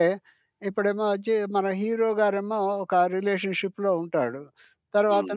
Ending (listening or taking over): listening